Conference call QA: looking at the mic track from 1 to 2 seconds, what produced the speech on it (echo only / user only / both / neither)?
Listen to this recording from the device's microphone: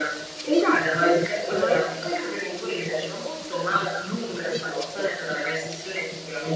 both